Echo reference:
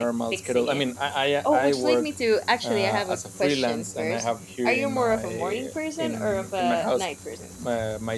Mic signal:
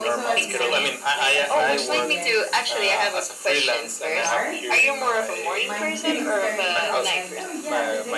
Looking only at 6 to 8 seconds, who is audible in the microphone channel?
both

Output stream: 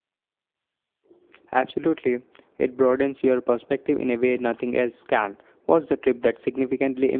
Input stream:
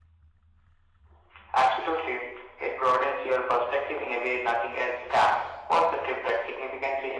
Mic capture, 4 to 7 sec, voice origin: echo only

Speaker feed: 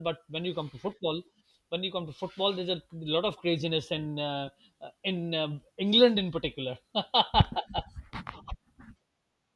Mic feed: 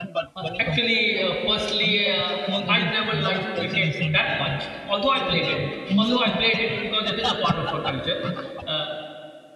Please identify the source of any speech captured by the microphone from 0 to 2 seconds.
both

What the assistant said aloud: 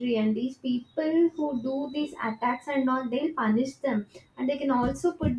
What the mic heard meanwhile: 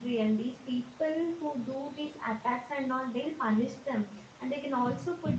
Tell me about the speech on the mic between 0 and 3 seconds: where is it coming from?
echo only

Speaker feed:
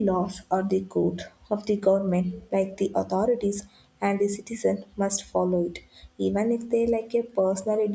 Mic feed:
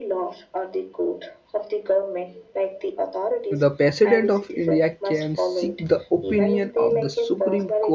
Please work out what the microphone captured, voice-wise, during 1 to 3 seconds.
echo only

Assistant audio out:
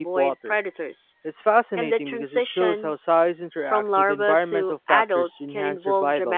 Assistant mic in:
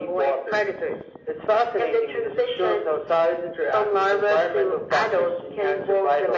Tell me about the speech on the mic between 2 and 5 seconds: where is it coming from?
echo only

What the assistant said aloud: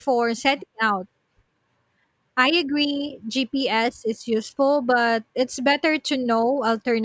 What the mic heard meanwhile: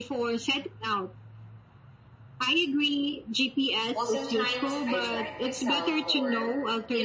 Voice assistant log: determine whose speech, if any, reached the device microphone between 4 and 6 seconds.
both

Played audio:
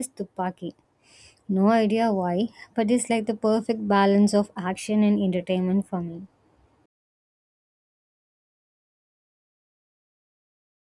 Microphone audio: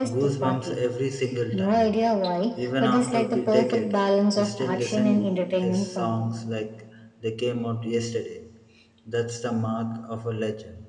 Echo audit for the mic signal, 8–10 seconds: user only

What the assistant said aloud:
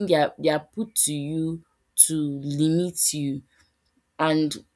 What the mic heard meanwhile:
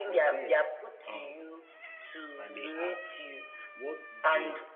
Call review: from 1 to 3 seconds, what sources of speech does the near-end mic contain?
both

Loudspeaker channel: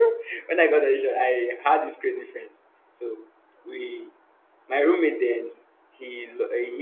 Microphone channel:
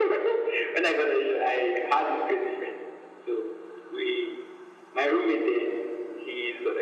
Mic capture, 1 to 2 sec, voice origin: echo only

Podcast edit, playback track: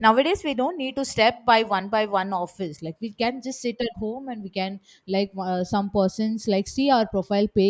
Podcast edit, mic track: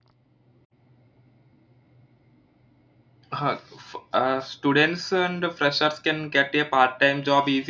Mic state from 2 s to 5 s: user only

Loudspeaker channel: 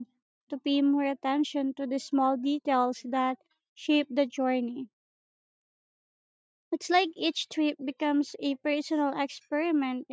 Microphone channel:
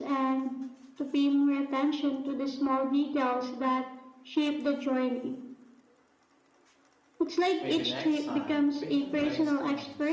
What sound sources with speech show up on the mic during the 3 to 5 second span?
echo only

